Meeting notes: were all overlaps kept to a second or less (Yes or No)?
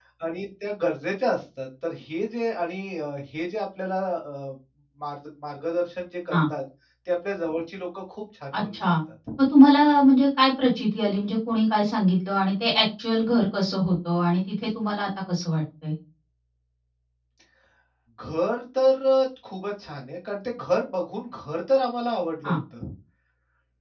Yes